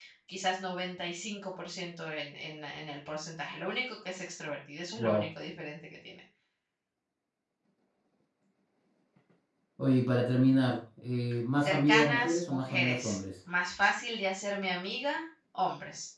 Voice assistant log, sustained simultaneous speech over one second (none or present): present